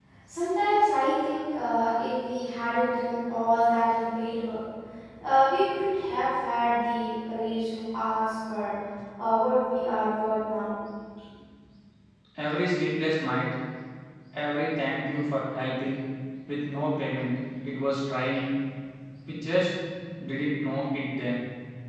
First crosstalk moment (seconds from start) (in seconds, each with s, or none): none